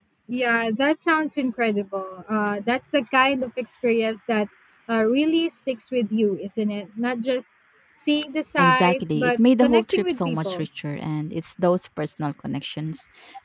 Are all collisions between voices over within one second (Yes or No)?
No